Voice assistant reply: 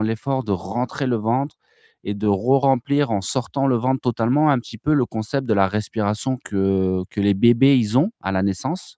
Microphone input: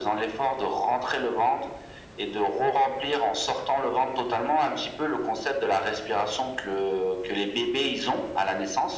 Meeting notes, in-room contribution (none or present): none